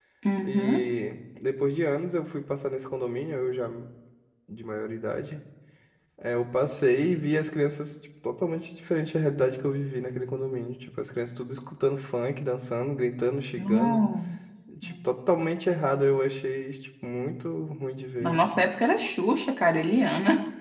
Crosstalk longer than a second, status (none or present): none